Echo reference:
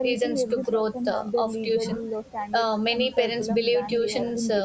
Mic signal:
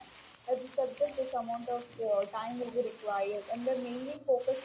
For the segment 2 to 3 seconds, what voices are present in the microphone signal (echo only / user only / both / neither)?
user only